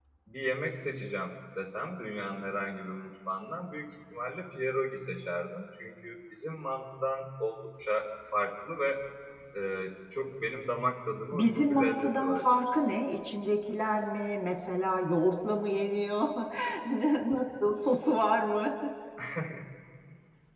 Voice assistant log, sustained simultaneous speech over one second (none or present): present